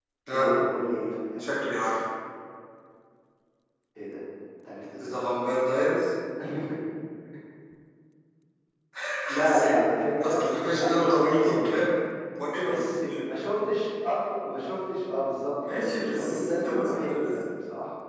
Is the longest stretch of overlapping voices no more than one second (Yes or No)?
No